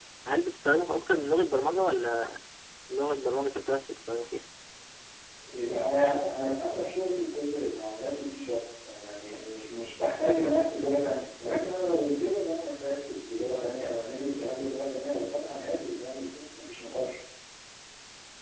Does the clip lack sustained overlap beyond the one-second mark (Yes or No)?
Yes